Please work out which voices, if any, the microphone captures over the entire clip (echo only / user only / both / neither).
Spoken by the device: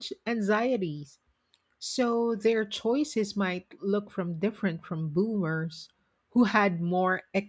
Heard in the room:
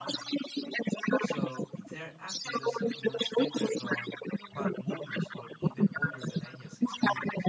both